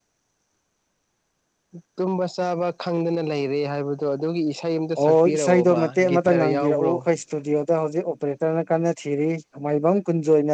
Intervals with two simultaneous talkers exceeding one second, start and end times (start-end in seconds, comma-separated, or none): 5.0-6.9